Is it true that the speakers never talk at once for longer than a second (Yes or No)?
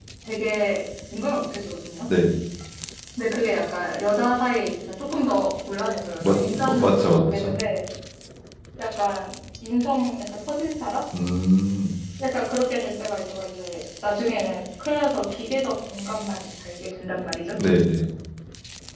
No